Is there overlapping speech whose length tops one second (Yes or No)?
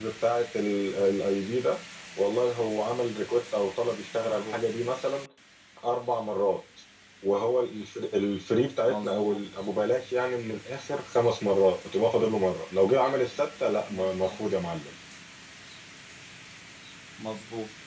No